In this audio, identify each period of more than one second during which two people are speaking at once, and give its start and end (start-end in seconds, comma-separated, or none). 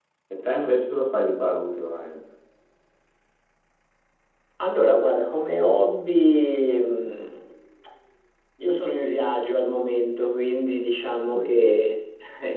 none